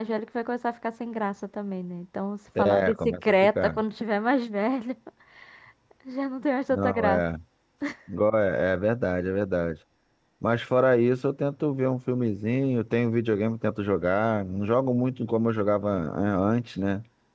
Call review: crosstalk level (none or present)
present